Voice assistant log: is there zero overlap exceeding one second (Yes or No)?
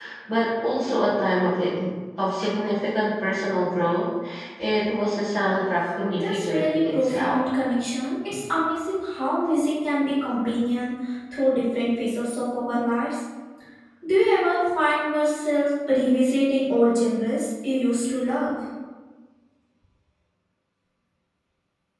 No